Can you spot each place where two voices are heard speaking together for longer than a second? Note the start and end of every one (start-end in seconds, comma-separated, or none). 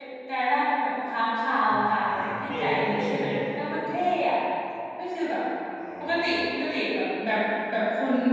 1.7-3.2